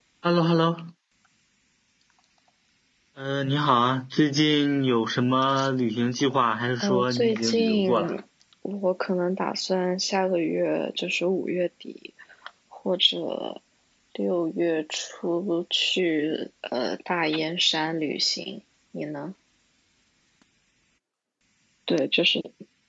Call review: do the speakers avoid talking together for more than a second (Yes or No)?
No